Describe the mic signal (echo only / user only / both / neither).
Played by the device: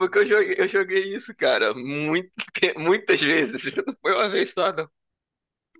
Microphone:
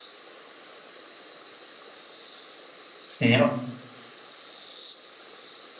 user only